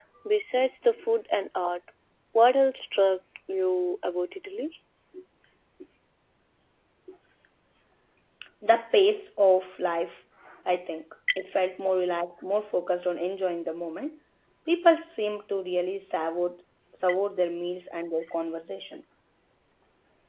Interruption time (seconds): none

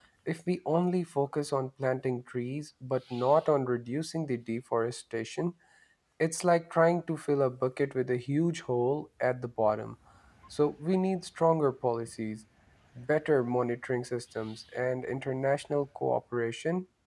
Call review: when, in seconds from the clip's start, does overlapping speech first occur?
none

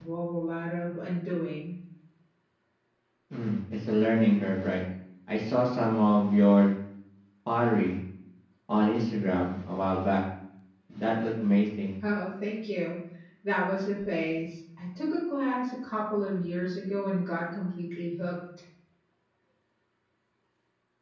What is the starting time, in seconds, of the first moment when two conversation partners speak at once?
none

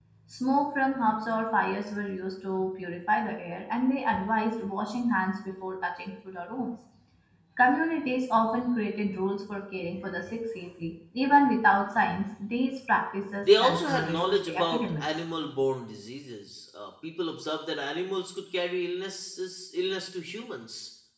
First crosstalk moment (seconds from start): 13.4 s

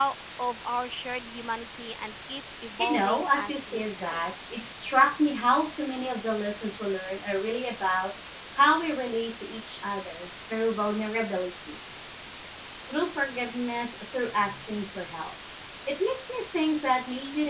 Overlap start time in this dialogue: 2.8 s

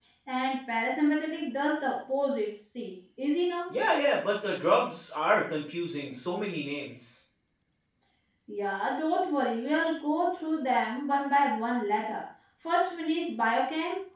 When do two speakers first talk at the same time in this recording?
none

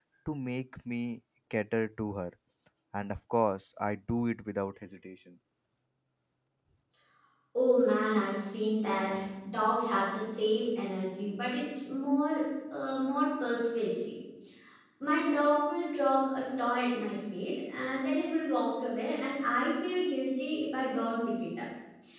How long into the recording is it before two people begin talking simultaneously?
none

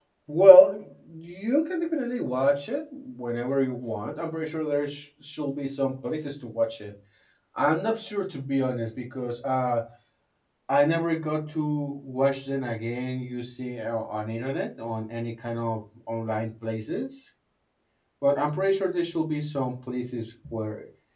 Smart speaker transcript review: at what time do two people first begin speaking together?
none

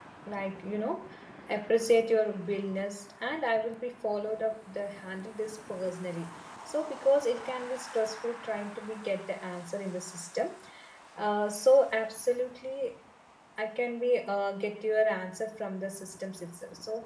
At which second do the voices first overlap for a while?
none

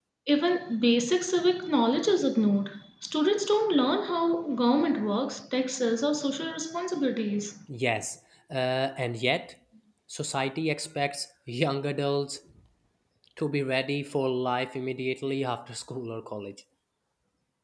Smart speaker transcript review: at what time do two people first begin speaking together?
none

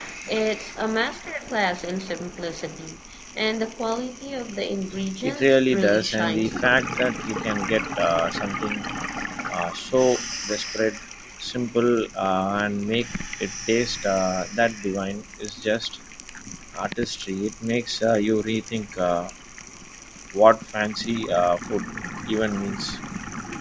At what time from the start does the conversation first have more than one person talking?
5.2 s

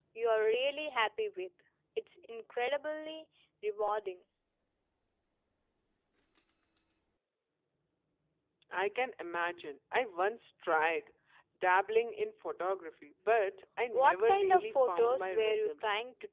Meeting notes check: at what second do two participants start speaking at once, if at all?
13.9 s

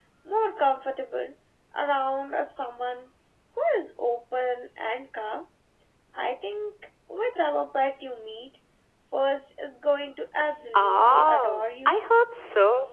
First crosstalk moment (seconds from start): 10.6 s

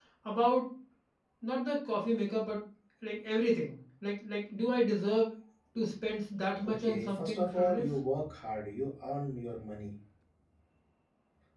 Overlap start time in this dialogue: 6.6 s

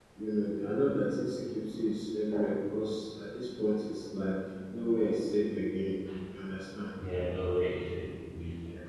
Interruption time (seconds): none

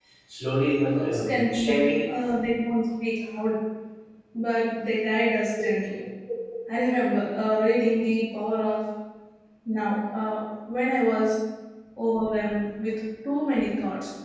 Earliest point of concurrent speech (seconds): 0.9 s

